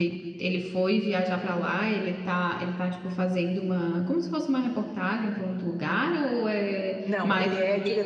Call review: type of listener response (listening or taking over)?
taking over